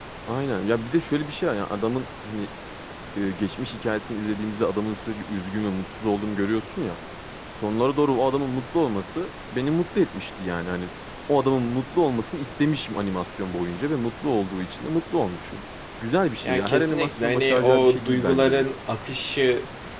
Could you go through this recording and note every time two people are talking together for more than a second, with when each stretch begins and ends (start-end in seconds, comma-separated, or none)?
16.4-18.7